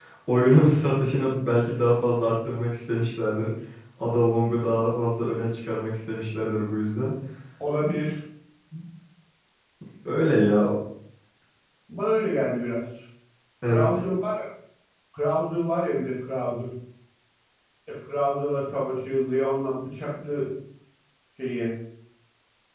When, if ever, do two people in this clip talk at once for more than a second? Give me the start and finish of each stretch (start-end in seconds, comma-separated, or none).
none